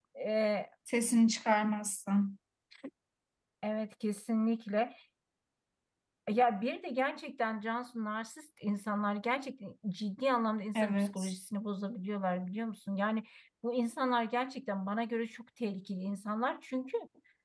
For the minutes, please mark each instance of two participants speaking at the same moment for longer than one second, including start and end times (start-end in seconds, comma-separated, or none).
none